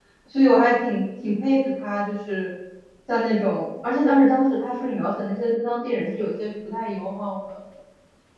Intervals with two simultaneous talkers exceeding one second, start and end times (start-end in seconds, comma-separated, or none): none